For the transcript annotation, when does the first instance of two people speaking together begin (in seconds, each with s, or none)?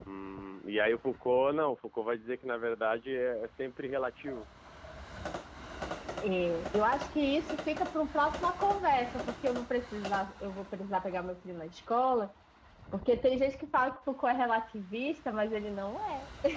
none